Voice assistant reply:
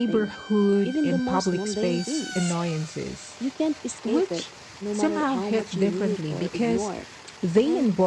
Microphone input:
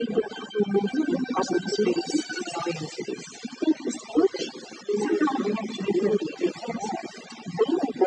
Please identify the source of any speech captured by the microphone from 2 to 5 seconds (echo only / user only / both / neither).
echo only